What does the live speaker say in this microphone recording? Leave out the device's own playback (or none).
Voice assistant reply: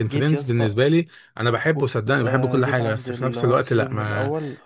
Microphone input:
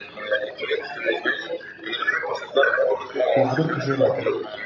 وحضرته سينما